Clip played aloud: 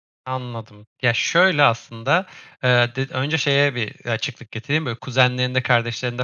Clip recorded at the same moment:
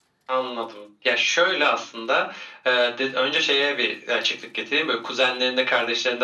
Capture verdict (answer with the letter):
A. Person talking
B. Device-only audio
B